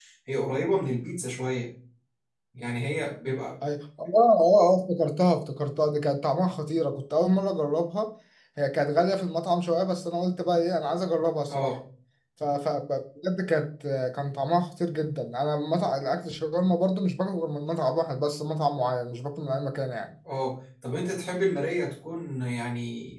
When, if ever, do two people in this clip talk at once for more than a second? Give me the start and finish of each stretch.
none

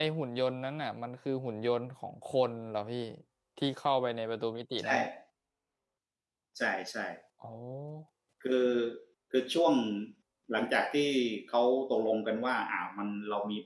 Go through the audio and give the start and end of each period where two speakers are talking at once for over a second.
none

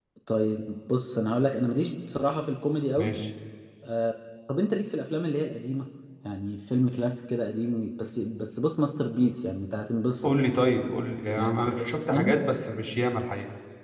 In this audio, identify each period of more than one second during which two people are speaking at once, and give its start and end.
none

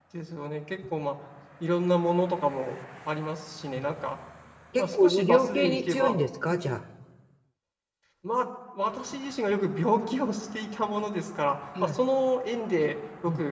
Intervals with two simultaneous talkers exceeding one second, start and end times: 4.8-6.2

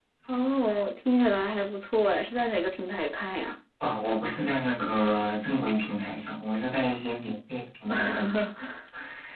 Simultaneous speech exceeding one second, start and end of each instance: none

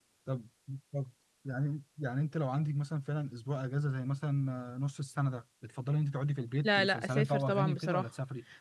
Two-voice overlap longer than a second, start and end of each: 6.6-8.1

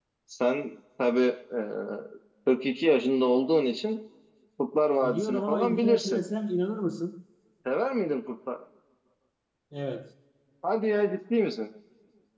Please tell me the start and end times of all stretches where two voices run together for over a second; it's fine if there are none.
5.0-6.2

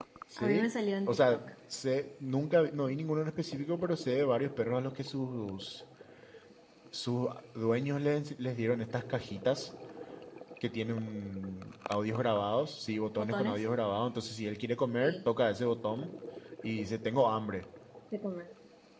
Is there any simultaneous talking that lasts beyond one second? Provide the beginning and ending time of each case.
none

